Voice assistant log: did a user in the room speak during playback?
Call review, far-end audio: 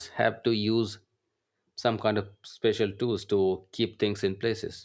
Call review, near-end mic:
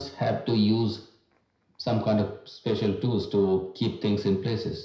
No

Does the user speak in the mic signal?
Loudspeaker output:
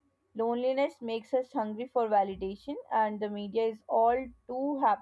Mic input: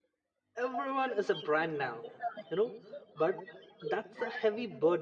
Yes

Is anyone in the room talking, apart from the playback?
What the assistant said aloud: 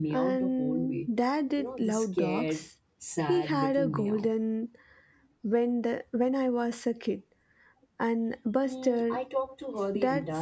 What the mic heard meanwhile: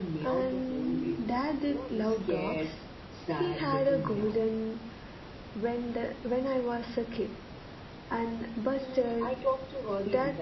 No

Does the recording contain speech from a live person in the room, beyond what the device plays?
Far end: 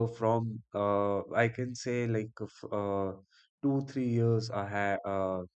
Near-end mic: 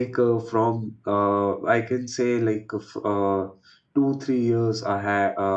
No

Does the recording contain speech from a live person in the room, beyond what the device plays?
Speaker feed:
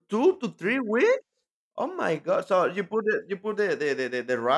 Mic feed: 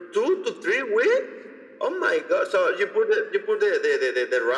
No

